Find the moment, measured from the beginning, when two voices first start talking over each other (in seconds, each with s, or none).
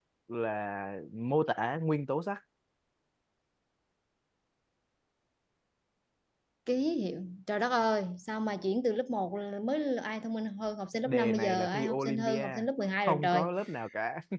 11.1 s